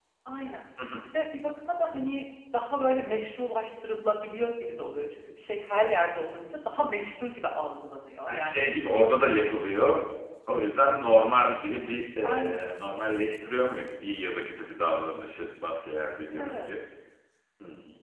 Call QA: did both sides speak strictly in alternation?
No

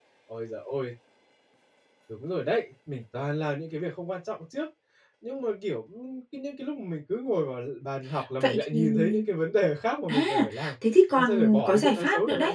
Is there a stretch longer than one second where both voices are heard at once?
Yes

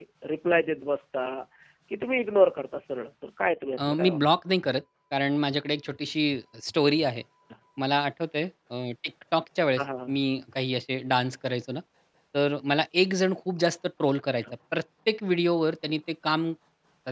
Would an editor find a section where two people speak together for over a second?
No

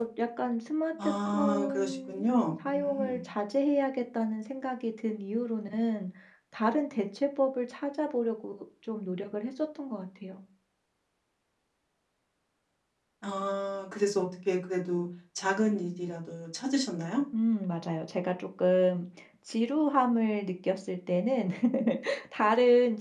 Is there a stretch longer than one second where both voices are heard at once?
Yes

